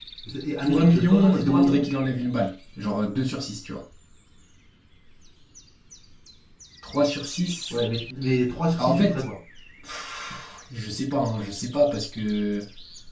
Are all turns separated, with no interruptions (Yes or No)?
No